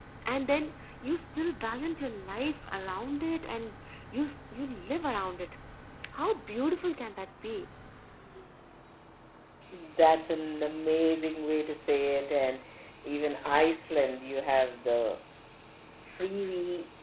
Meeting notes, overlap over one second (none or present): none